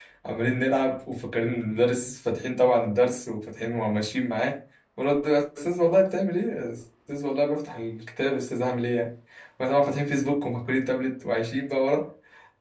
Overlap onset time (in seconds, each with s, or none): none